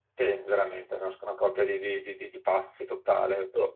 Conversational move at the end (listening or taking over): listening